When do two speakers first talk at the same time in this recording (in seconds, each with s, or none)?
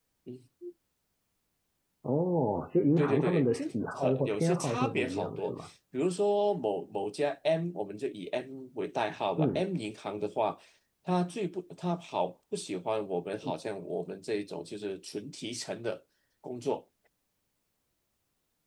3.0 s